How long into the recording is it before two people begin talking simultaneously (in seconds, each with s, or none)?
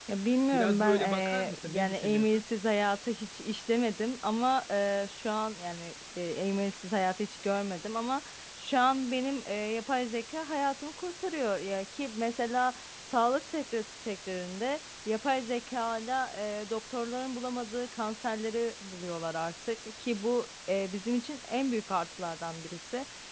0.5 s